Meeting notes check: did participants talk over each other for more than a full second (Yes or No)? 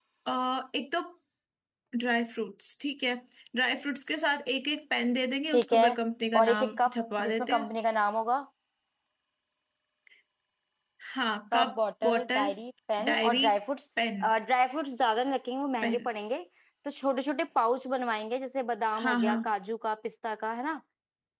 Yes